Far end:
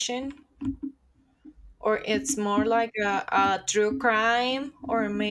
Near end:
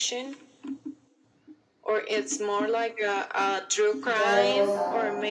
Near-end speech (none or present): present